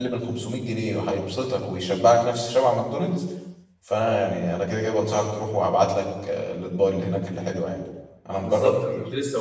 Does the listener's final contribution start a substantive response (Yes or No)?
Yes